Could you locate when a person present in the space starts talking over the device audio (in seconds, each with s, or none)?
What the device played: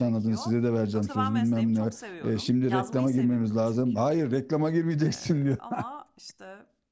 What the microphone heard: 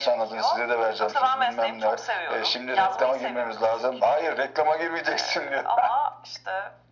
none